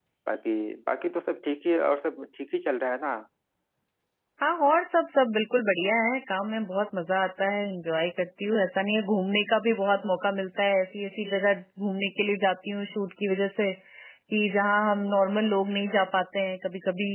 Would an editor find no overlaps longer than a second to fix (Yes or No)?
Yes